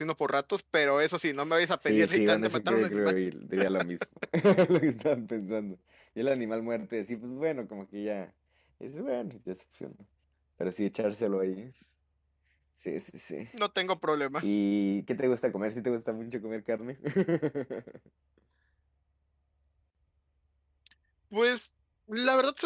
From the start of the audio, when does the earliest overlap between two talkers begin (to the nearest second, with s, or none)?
2 s